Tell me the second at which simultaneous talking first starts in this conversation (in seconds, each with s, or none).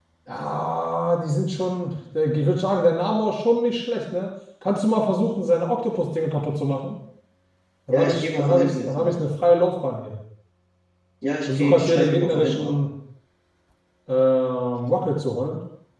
7.9 s